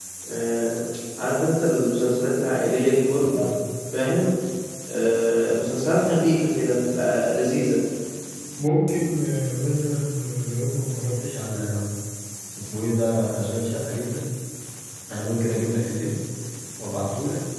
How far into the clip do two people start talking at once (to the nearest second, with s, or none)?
none